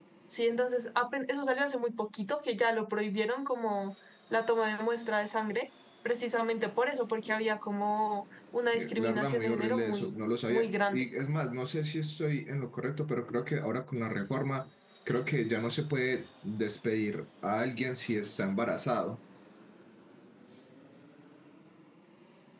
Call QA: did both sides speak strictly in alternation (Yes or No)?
No